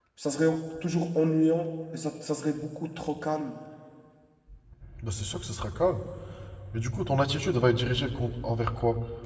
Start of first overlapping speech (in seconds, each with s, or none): none